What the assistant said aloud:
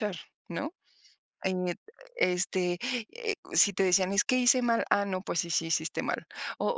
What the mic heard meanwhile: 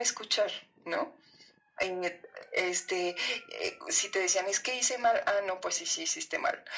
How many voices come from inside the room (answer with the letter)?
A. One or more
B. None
B